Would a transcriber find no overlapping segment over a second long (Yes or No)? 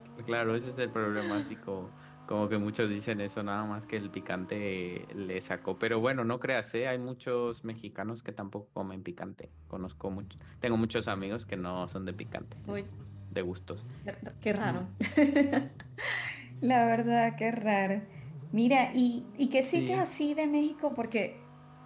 Yes